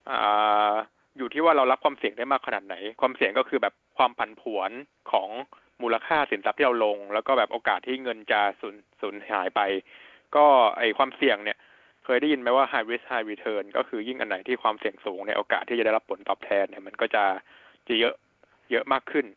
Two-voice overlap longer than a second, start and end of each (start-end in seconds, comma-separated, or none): none